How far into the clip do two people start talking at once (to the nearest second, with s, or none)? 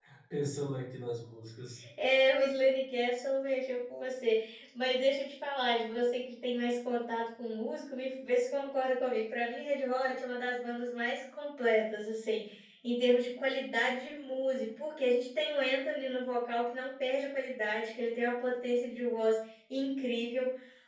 none